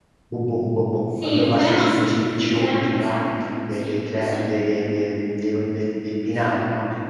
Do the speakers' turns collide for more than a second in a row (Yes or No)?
Yes